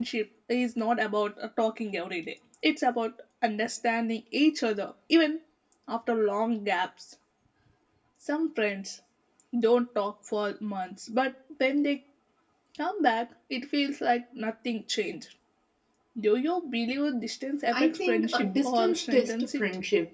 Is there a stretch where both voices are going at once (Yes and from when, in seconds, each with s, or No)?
Yes, from 17.7 s